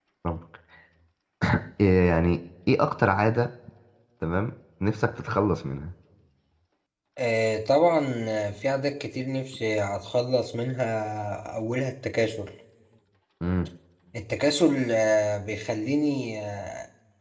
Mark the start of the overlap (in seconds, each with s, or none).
none